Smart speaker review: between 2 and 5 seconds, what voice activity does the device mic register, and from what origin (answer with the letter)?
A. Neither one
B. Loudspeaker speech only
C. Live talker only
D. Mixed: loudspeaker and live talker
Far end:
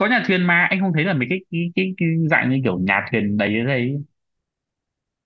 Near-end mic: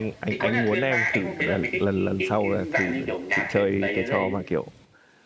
D